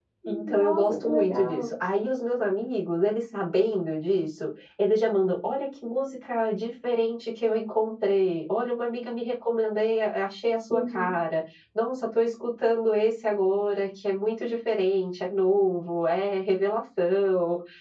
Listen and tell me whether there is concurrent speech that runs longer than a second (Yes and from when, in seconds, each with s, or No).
Yes, from 0.5 s